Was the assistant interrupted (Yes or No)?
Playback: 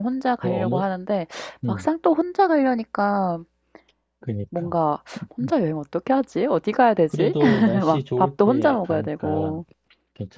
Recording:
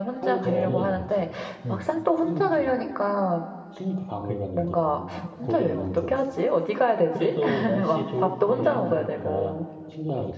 Yes